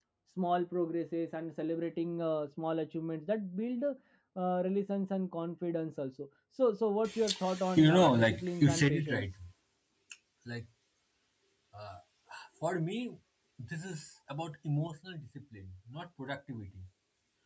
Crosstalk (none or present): present